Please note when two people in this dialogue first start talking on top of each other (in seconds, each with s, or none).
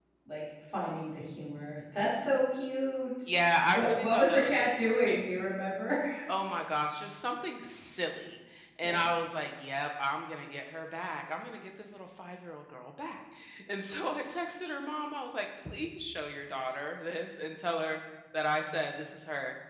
3.7 s